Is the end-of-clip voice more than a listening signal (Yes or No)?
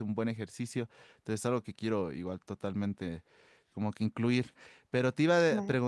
Yes